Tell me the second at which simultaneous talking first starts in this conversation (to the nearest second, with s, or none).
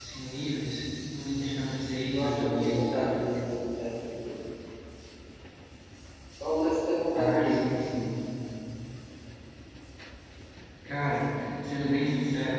2 s